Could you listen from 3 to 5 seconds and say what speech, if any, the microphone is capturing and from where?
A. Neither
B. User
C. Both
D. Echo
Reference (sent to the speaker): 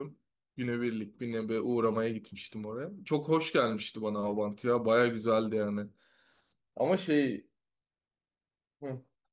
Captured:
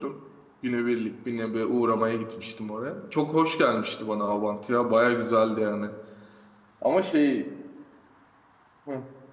D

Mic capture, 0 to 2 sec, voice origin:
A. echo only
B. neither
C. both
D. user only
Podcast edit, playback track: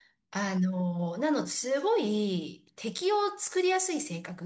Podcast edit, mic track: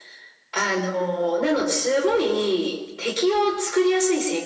A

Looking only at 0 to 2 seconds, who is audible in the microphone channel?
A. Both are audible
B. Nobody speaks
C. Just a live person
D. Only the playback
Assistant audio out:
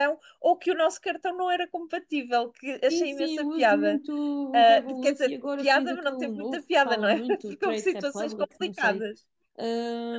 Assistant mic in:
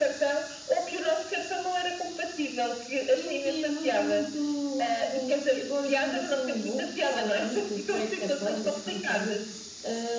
D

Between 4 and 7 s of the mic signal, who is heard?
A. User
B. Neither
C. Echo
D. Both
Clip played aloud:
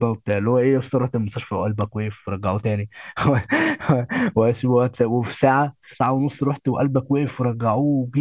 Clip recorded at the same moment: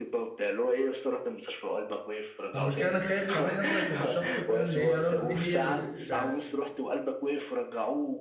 D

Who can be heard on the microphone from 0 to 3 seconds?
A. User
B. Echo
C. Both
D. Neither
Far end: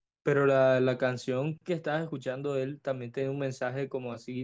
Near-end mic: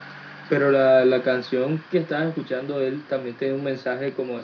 B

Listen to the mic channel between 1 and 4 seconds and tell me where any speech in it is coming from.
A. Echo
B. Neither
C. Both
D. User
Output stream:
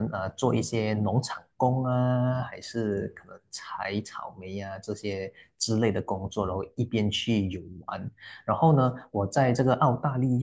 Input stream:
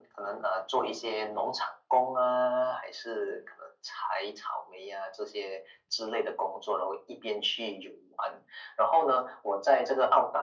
A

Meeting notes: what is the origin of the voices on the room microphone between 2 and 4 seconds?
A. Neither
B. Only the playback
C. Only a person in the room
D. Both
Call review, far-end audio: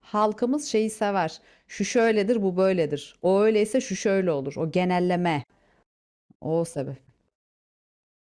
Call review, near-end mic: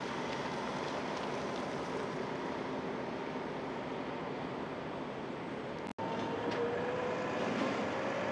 A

